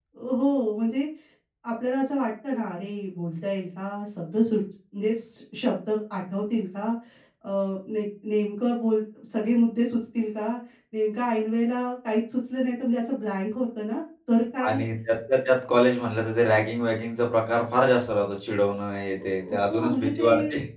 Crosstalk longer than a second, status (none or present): present